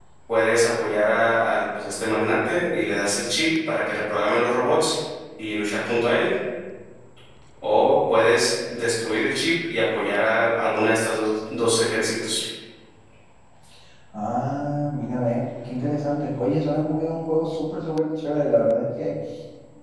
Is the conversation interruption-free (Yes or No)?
Yes